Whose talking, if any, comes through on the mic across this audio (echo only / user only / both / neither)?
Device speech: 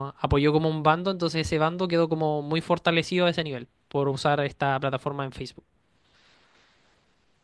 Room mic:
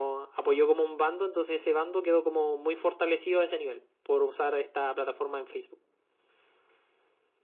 echo only